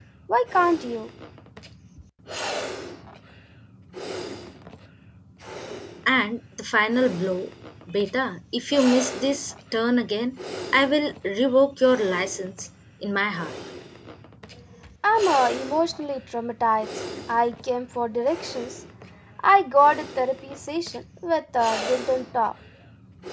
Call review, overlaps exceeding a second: none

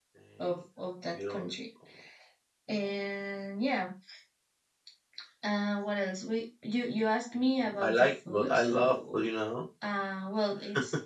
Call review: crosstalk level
present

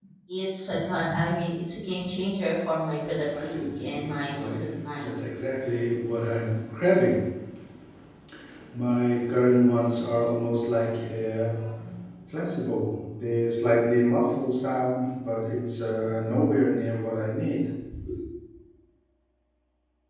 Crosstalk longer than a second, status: present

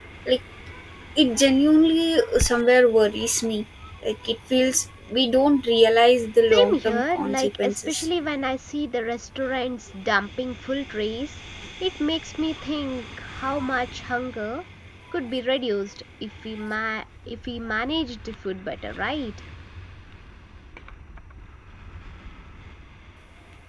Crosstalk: present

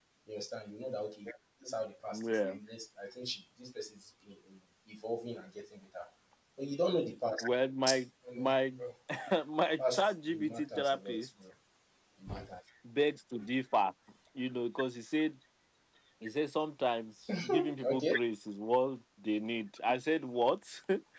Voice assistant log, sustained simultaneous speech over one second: present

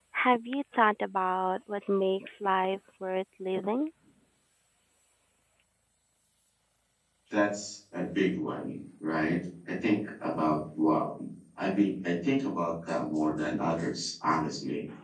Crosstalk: none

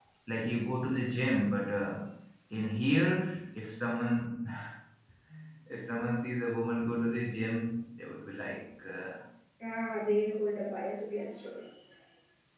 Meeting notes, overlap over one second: none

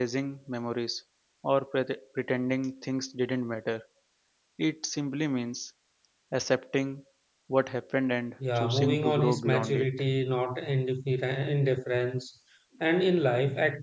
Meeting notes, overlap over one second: present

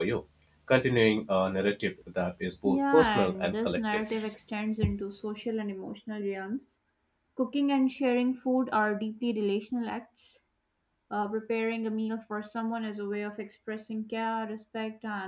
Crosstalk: present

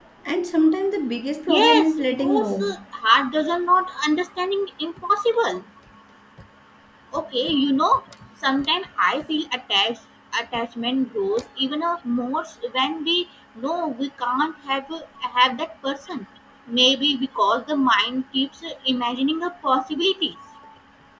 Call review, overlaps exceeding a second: present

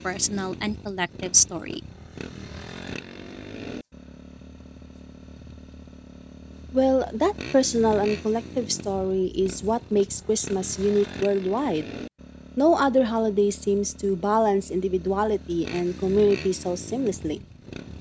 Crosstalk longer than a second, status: none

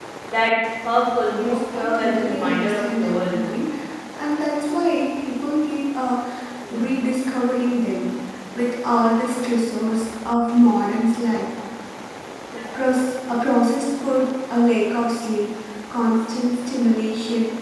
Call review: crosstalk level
present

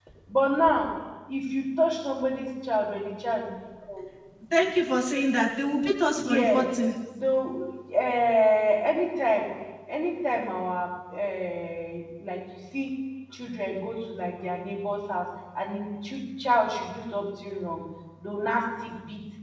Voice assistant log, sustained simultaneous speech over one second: none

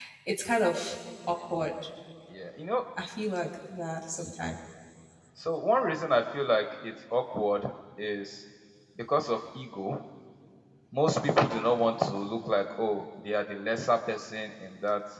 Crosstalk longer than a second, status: none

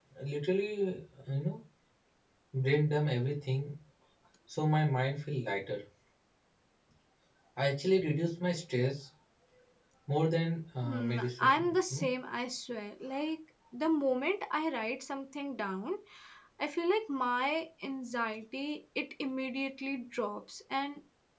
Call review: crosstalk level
present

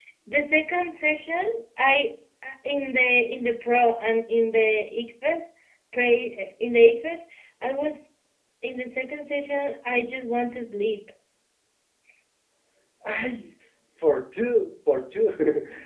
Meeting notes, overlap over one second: none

